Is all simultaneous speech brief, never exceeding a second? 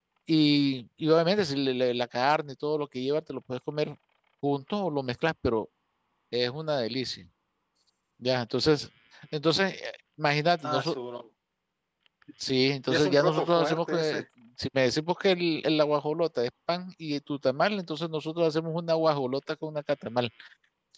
No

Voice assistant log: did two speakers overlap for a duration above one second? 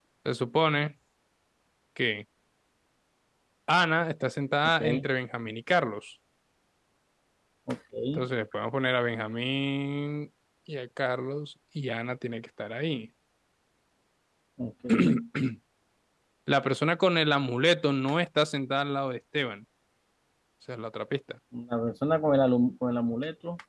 No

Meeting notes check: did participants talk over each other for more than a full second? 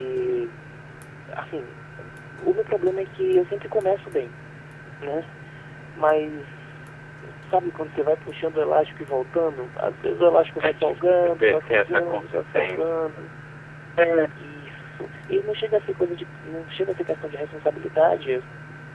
Yes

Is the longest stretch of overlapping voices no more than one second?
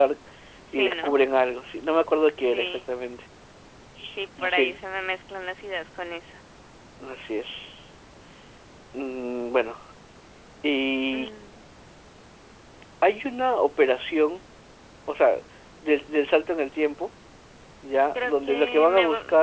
No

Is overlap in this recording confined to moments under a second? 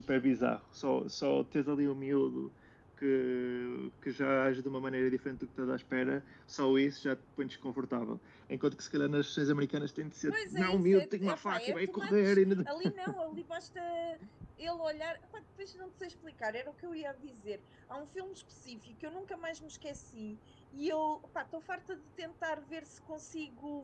No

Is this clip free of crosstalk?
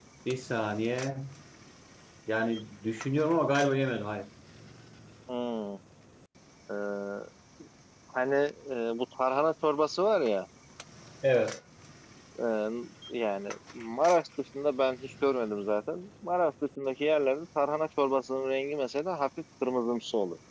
Yes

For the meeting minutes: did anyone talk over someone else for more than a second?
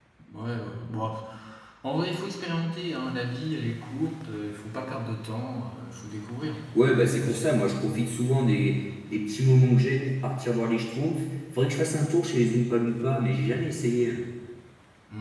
No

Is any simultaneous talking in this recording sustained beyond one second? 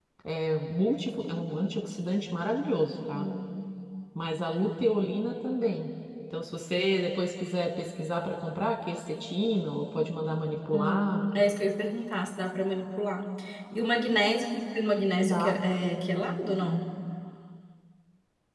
No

